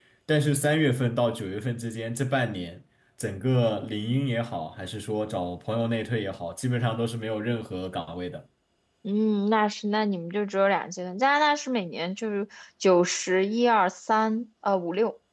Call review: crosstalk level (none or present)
none